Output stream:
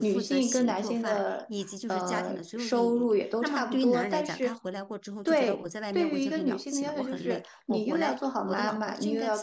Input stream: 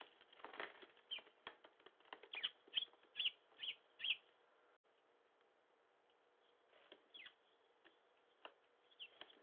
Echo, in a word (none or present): none